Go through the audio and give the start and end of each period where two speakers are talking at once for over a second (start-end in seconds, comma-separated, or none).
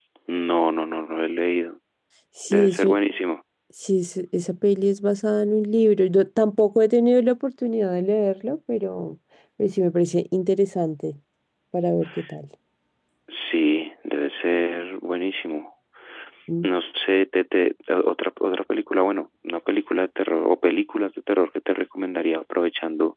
none